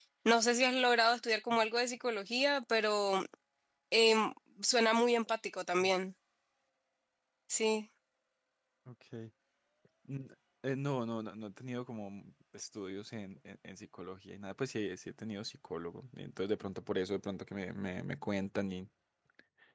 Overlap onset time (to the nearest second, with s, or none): none